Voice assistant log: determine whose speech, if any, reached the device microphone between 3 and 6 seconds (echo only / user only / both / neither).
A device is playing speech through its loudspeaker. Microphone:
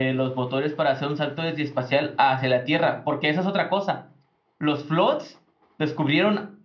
echo only